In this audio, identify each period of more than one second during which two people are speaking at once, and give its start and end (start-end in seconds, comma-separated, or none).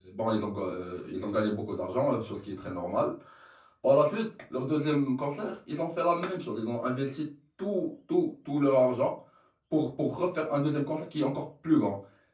none